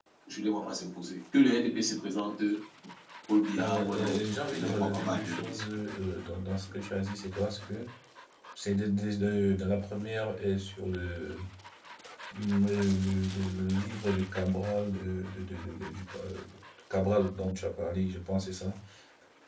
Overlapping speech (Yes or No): Yes